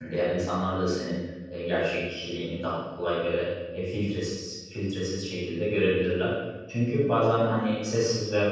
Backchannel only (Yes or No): Yes